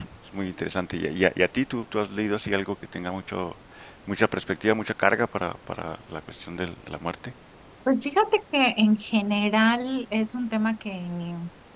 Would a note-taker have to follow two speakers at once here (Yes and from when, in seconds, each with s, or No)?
No